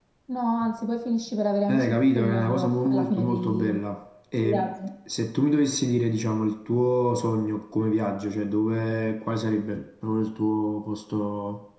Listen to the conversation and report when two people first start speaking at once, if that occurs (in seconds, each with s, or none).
1.7 s